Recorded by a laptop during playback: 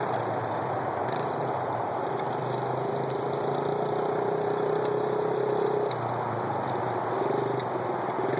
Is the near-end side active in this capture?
No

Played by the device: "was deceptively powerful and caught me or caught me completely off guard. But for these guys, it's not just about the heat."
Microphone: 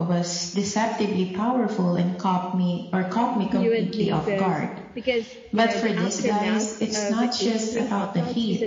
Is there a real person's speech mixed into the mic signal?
Yes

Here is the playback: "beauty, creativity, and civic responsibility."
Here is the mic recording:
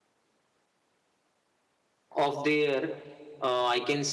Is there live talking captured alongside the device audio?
Yes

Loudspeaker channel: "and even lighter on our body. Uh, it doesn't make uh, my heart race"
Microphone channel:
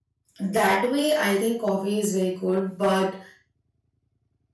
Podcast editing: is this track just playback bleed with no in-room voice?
No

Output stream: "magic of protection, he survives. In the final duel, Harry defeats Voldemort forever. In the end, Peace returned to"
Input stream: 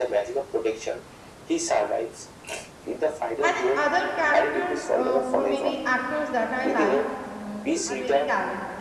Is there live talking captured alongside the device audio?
Yes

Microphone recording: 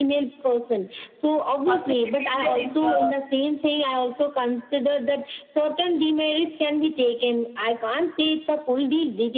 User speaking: Yes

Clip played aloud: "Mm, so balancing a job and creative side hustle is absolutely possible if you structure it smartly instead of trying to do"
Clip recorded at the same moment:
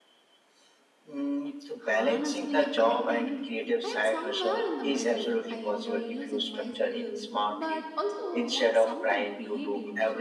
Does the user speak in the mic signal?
Yes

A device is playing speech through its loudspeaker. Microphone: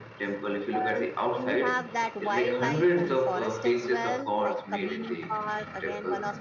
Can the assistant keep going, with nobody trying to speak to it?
Yes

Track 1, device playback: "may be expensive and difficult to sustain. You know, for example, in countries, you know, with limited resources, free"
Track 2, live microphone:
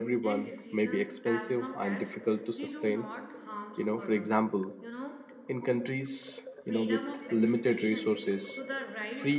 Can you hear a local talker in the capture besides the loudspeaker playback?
Yes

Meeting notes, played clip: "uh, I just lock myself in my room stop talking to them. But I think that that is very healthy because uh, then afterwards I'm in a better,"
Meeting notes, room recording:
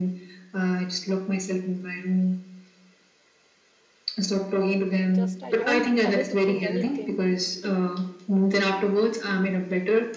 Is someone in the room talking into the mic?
Yes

